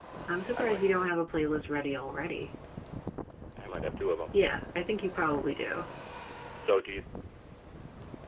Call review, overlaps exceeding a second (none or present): none